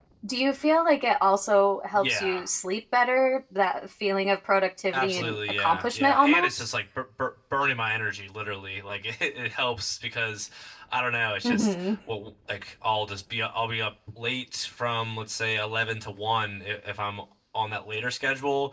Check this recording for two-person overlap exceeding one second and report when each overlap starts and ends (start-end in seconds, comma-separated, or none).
4.9-6.7